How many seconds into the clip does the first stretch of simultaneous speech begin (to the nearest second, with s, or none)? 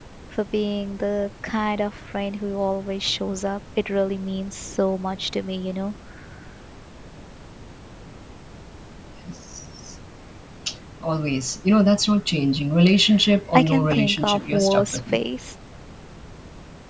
14 s